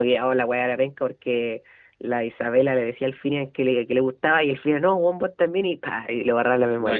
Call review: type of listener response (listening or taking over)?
taking over